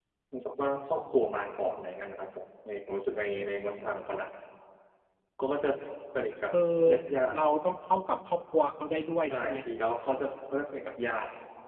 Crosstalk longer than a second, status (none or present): none